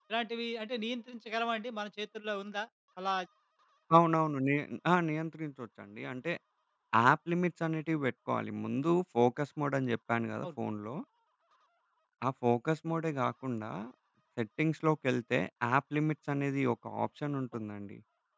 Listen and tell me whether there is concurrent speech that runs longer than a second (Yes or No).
No